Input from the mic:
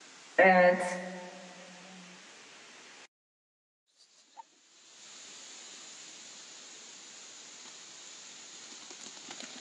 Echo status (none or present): none